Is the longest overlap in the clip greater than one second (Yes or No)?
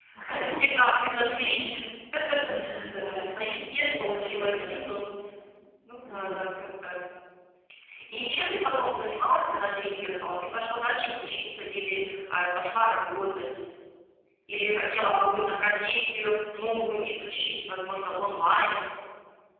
Yes